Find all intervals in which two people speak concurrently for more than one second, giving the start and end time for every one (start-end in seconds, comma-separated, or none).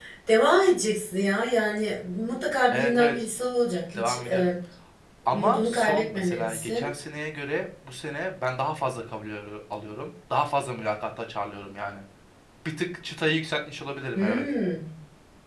5.2-6.9